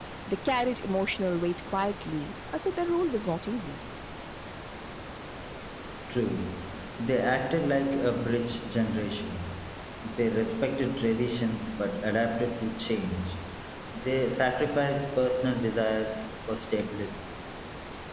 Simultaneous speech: No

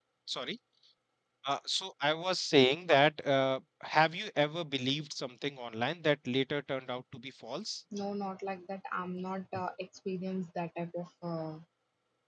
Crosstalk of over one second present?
No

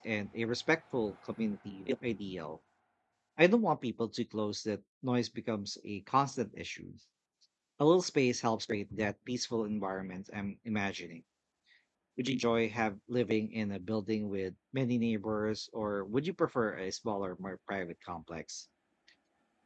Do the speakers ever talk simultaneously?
No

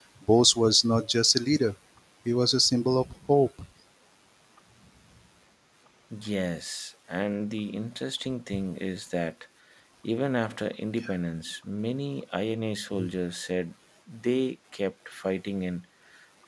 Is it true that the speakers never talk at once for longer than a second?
Yes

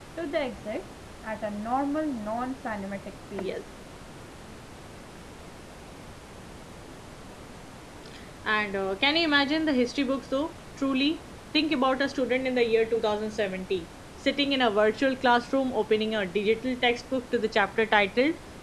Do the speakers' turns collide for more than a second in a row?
No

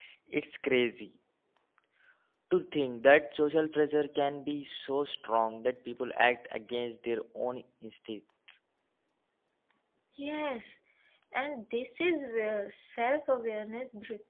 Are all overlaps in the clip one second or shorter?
Yes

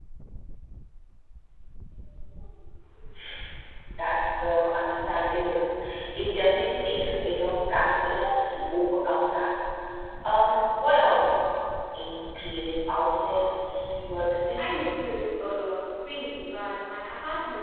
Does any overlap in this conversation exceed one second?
No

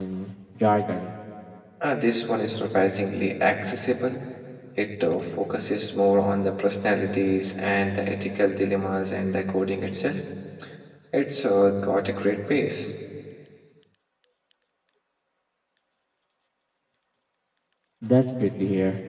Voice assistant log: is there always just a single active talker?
Yes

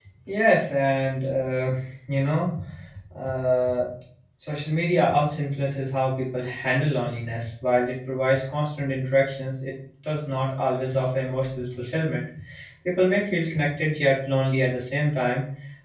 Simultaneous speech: No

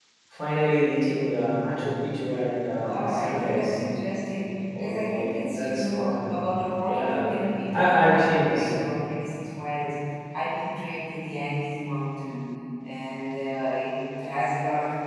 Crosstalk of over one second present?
Yes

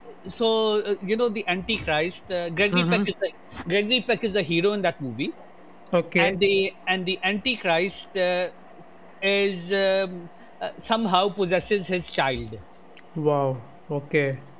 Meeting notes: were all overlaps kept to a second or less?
Yes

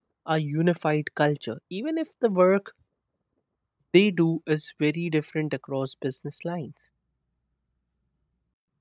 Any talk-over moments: No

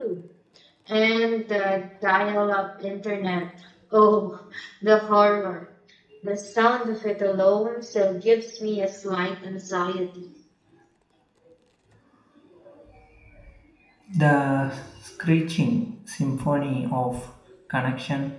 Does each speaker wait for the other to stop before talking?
Yes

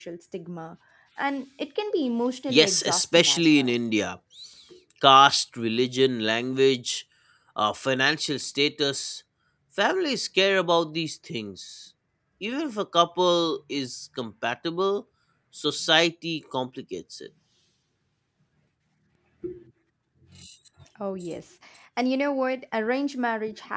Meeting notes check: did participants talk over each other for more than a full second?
Yes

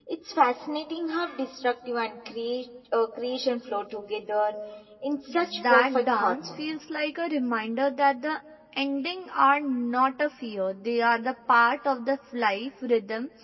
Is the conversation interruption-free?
No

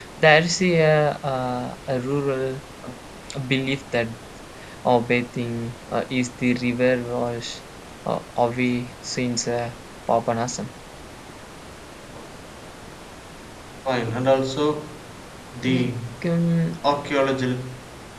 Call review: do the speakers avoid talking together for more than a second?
Yes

